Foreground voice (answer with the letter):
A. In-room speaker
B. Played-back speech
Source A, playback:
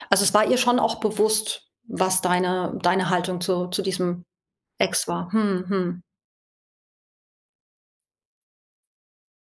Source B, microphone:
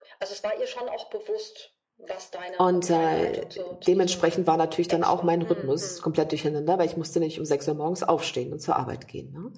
A